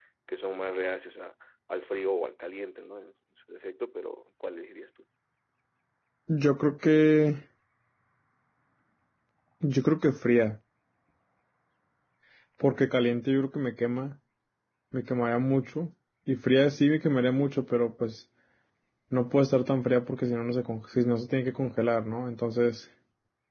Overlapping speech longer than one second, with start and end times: none

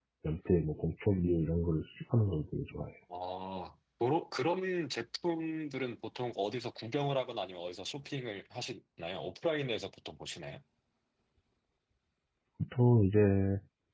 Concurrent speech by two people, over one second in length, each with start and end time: none

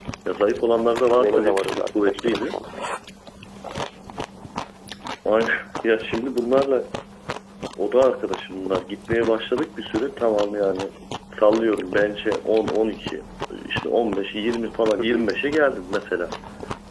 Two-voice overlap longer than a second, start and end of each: 1.2-2.5

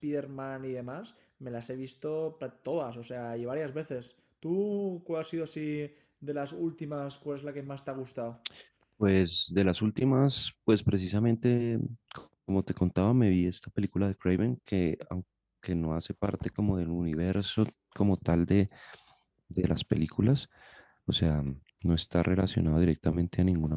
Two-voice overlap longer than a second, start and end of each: none

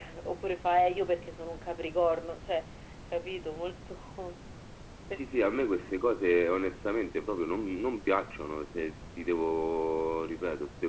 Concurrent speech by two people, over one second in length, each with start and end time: none

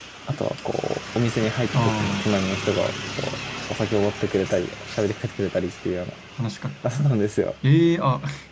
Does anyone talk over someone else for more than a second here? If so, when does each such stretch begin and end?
none

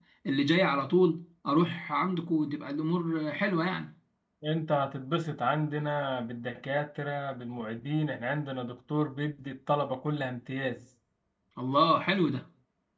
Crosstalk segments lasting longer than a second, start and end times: none

